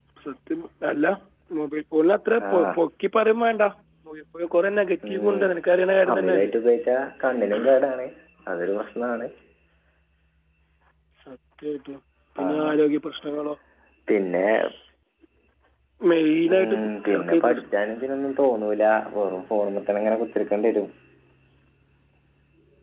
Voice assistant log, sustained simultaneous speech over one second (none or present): present